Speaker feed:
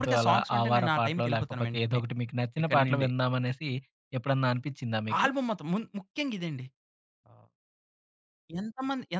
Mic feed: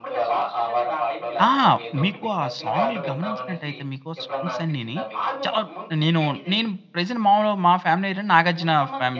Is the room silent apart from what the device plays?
No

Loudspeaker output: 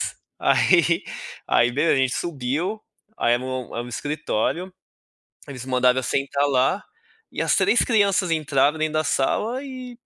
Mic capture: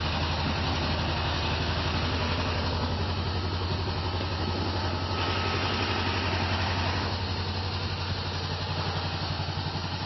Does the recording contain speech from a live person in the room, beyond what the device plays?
No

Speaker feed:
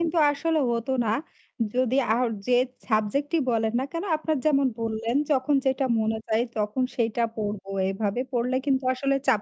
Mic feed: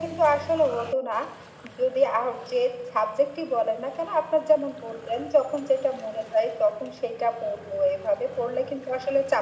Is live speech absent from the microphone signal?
Yes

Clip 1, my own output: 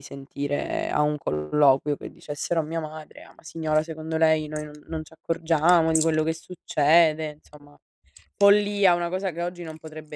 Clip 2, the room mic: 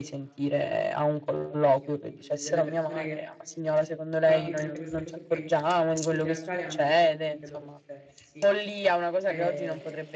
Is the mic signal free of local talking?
No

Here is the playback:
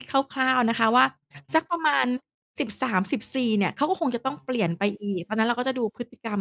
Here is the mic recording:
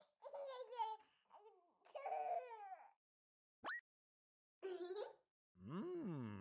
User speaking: No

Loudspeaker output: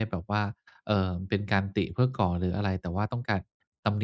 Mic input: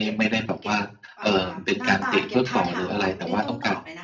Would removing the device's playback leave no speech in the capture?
No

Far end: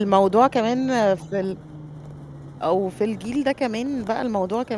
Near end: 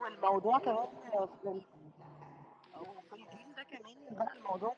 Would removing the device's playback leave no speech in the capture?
No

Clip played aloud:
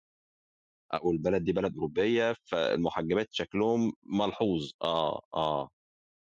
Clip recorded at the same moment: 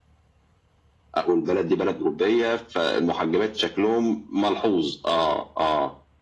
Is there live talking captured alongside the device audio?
No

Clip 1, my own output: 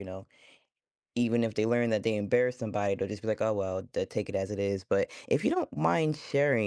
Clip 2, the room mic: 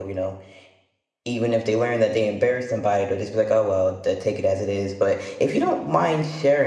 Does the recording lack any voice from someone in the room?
Yes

